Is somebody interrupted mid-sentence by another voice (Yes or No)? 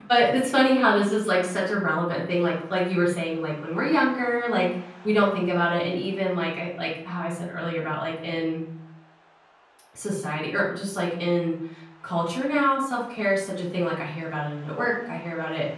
No